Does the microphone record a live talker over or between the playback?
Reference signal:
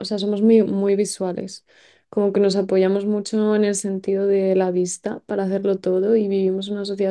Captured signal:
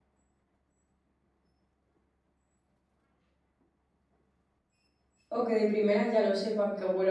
Yes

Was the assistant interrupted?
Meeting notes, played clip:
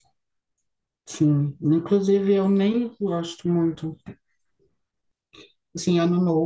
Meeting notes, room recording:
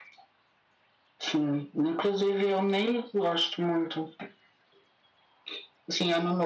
No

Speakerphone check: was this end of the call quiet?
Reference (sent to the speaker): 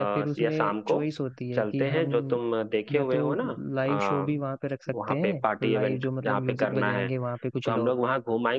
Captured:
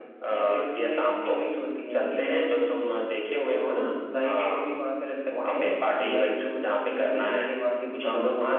Yes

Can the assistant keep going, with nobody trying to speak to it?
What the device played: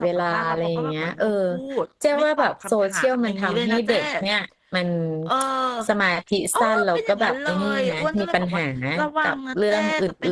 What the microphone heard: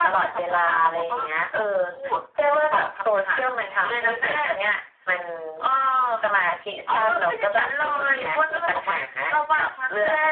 Yes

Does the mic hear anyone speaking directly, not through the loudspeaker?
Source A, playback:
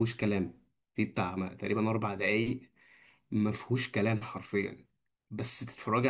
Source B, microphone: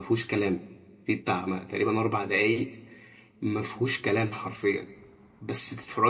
No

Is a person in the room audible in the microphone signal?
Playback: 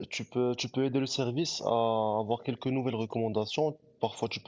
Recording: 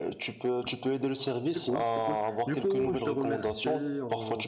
Yes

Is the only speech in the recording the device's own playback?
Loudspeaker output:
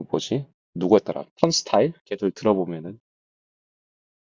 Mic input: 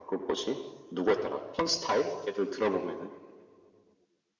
Yes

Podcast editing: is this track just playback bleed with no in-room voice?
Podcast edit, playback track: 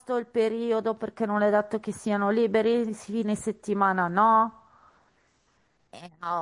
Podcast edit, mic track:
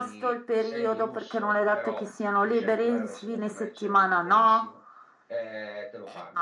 No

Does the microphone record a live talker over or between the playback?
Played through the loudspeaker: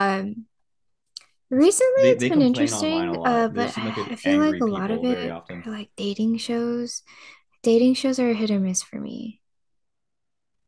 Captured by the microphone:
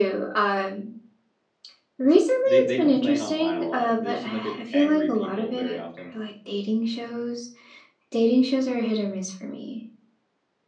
No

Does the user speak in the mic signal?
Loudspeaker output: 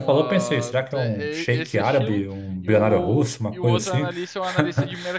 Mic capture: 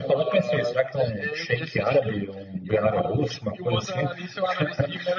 No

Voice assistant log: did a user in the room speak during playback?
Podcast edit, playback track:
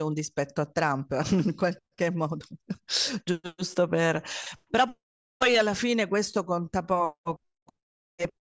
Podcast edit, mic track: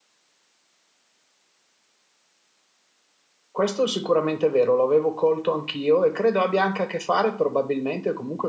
Yes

